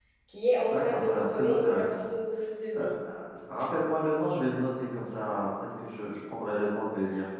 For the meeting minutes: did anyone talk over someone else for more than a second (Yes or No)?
Yes